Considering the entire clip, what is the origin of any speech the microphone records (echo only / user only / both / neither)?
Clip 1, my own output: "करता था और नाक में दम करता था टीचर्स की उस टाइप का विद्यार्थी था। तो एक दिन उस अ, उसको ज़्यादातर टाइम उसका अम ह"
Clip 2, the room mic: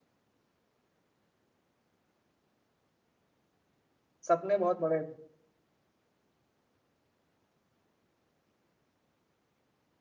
user only